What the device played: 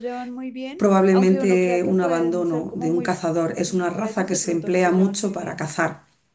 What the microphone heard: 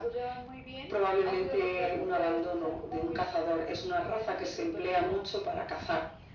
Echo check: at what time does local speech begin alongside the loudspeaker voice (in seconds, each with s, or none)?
none